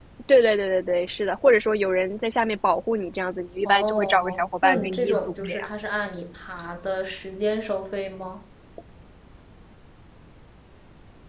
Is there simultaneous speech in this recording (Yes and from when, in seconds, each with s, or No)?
Yes, from 3.6 s